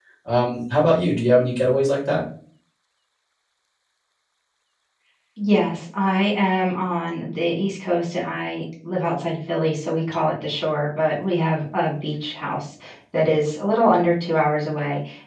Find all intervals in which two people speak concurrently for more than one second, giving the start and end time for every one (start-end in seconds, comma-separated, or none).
none